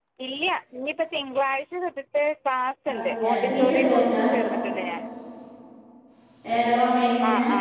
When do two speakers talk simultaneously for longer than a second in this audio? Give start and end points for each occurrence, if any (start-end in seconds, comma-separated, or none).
3.0-4.2